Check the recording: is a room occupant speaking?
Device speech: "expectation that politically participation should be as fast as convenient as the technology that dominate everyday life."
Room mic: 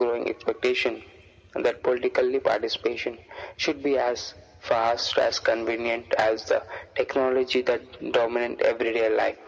No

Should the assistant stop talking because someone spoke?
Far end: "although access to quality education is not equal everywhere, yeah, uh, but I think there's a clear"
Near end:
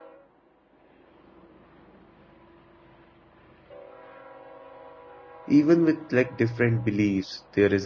Yes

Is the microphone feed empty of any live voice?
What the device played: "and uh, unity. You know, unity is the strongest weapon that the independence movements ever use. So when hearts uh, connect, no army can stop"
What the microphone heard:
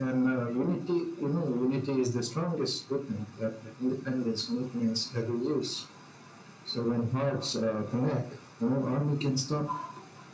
Yes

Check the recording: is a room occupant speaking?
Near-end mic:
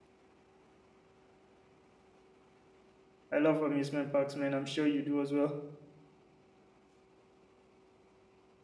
Yes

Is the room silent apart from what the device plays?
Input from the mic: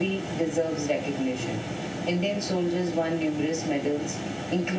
Yes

